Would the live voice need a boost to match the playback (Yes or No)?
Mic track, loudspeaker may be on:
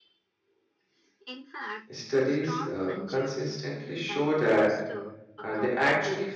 No